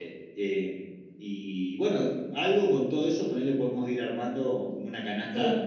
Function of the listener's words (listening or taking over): taking over